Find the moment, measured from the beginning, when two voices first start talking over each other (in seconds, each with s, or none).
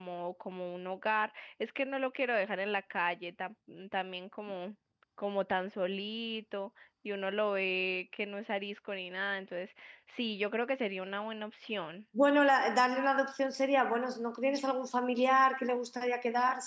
none